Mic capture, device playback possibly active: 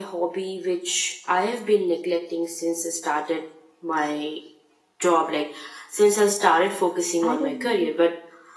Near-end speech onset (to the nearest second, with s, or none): 7 s